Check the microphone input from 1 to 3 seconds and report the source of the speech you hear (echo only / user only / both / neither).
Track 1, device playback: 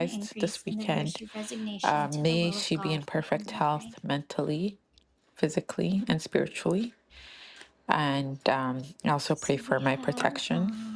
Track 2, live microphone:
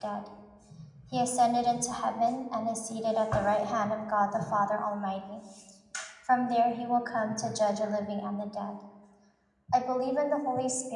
user only